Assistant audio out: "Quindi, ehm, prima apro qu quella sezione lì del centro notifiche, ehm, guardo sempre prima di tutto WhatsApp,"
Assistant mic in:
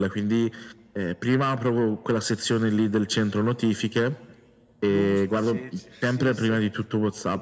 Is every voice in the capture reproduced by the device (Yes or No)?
No